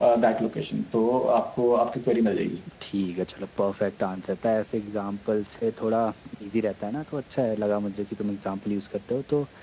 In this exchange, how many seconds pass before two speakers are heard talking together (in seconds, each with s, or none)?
none